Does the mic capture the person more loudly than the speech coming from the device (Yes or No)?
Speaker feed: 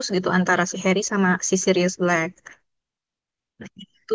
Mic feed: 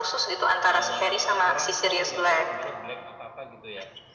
No